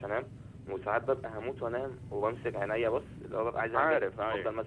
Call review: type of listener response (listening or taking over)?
listening